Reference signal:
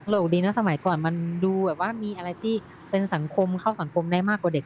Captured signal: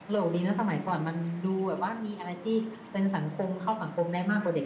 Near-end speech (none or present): none